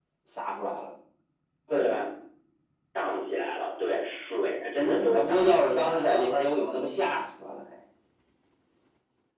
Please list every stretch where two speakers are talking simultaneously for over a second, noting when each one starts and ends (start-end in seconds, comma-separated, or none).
4.8-6.3